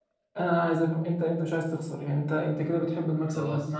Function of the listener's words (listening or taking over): listening